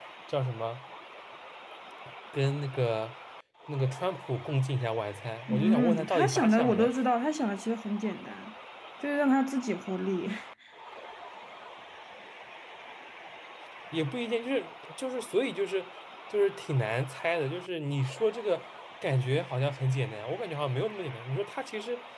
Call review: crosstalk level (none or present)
present